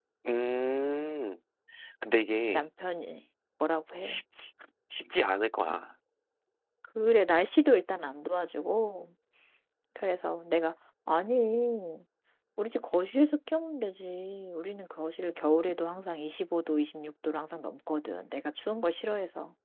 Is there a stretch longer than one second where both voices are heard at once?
No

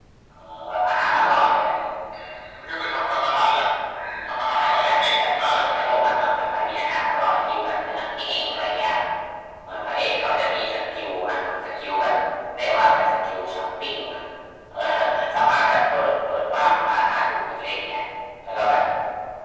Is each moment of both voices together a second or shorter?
No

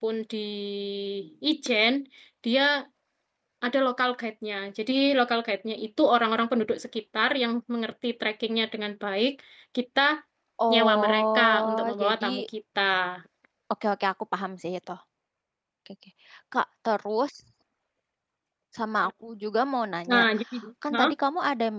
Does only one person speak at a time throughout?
No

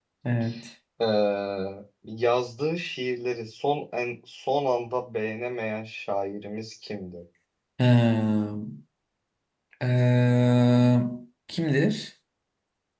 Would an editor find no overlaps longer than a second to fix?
Yes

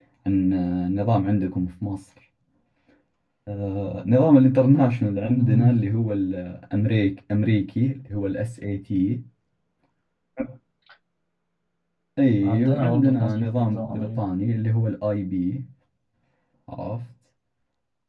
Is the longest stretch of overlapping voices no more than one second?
No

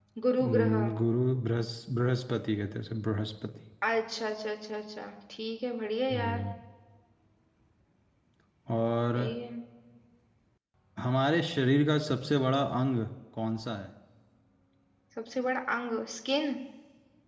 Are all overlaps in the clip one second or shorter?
Yes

